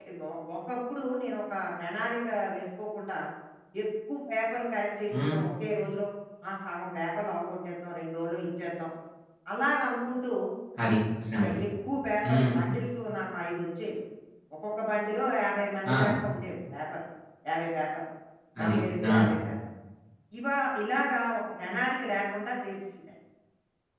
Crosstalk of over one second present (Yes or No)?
No